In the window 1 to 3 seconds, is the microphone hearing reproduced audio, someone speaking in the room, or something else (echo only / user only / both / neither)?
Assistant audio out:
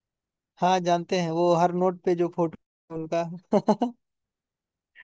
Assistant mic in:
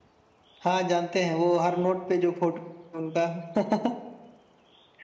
echo only